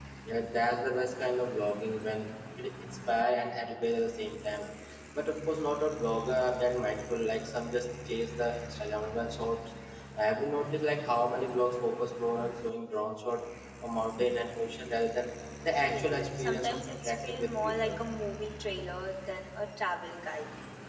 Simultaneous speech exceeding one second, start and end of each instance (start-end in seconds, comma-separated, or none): 15.8-18.0